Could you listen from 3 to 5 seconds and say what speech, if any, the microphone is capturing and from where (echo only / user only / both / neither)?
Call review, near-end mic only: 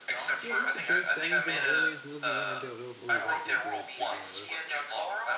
both